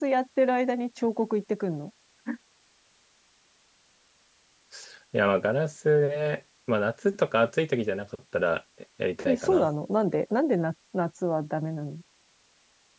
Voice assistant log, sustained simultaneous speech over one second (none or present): none